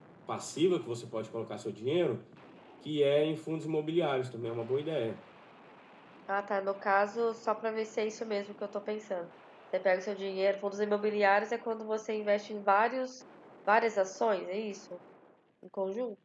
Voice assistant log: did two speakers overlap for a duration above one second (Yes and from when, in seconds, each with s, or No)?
No